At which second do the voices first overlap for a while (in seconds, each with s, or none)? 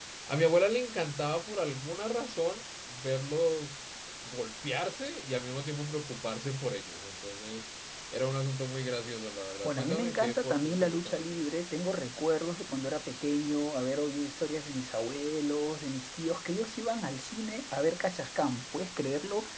9.6 s